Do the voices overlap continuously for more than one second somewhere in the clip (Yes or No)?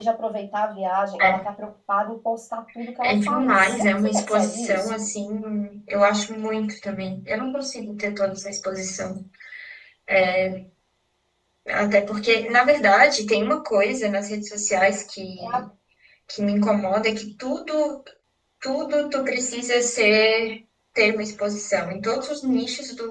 Yes